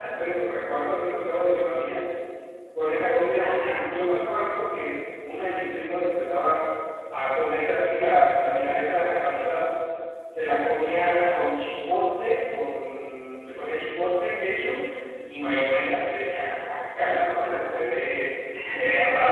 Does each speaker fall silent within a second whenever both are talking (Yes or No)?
Yes